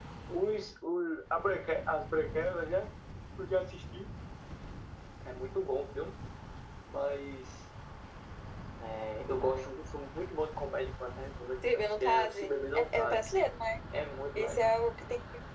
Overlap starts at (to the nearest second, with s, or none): 12 s